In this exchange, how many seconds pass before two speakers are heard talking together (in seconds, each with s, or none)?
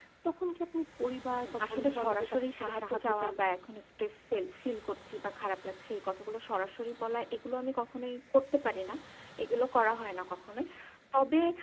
1.3 s